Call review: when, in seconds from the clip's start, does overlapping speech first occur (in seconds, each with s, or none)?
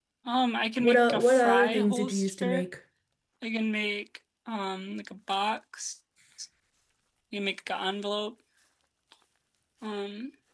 0.8 s